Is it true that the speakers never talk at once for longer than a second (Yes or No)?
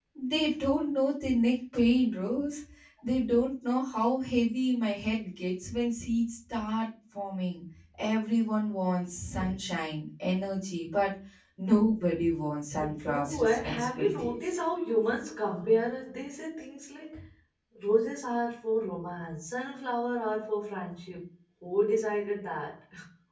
No